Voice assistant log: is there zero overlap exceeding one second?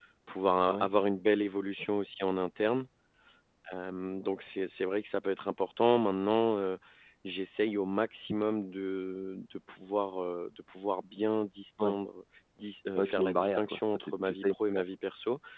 No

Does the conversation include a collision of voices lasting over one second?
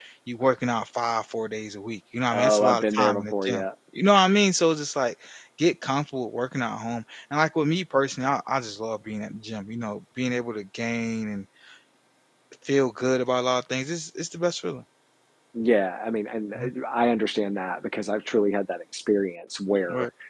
Yes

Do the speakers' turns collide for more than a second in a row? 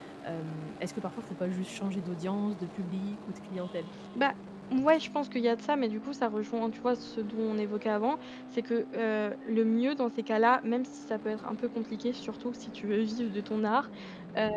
No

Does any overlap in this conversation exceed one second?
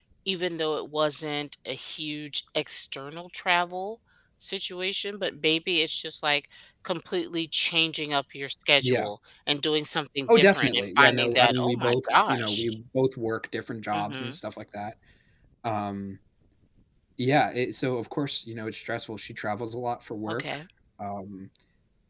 Yes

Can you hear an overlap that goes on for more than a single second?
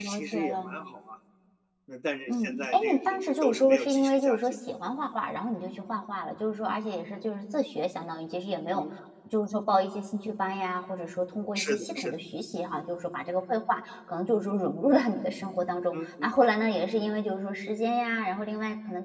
Yes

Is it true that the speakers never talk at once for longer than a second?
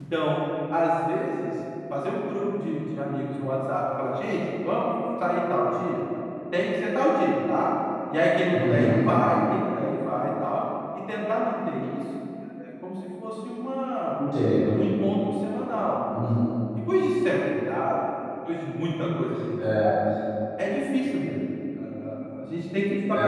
Yes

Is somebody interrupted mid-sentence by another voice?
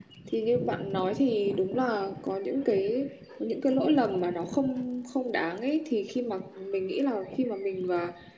No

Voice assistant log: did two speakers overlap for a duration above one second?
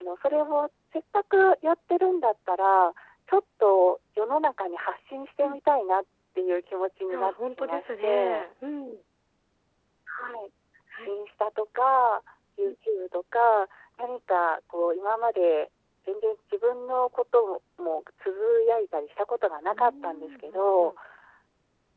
Yes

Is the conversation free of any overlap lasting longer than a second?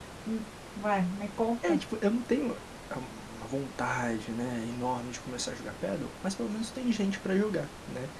Yes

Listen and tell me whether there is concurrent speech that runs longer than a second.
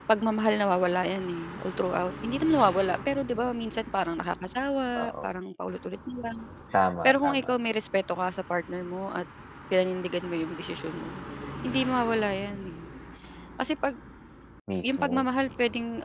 No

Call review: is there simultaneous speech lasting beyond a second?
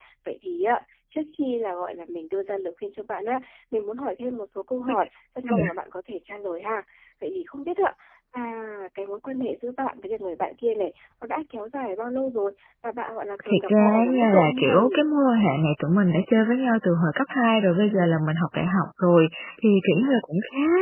Yes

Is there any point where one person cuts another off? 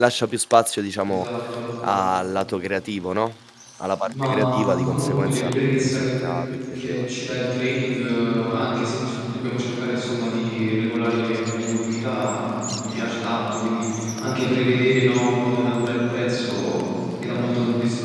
Yes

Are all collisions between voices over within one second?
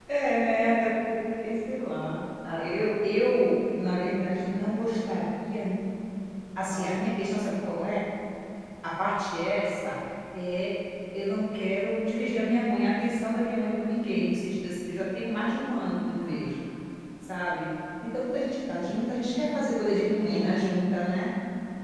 Yes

